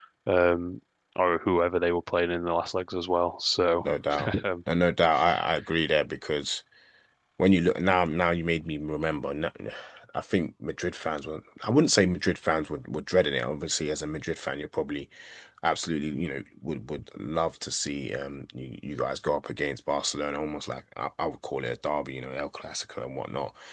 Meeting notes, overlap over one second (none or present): none